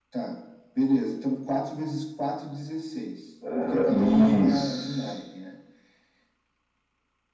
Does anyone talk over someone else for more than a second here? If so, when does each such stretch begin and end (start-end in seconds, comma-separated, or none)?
3.6-5.1